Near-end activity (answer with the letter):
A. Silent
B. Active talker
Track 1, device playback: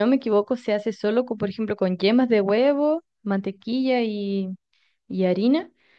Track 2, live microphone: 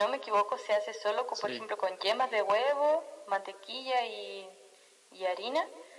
B